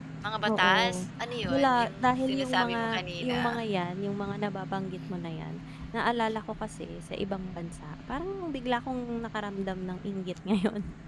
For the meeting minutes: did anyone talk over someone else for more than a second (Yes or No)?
Yes